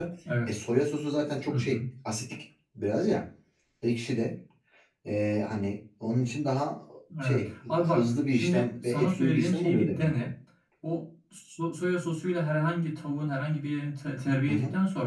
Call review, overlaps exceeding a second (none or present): present